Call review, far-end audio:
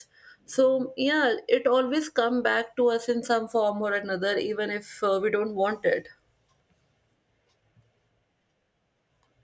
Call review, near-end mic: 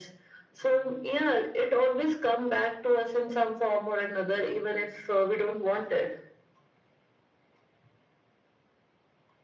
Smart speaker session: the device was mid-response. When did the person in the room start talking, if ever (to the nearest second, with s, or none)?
none